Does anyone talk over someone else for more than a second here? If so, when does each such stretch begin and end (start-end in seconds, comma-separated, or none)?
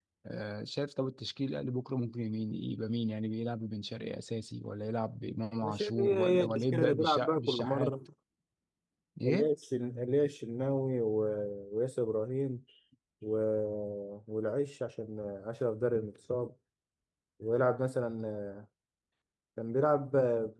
5.6-7.9